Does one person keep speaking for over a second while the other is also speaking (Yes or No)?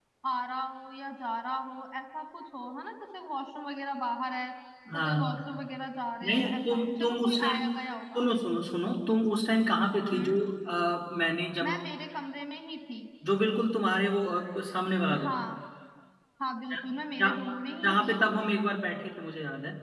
Yes